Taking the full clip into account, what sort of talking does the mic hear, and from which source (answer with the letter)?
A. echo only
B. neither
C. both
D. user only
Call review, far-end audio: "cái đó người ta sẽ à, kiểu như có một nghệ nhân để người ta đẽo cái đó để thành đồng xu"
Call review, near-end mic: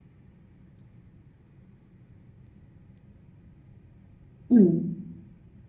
D